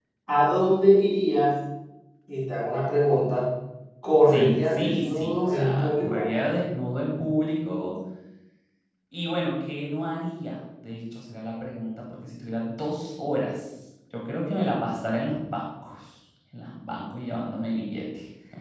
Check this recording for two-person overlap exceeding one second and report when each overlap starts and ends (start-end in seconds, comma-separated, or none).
4.3-6.2